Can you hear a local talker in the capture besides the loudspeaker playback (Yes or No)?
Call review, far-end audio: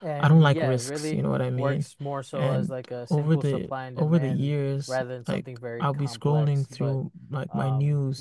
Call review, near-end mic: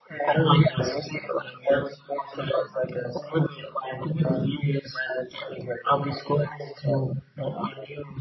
No